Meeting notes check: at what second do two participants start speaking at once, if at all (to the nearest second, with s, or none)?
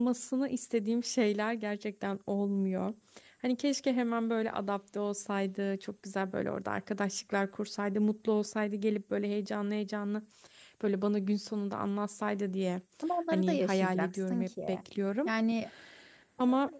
13 s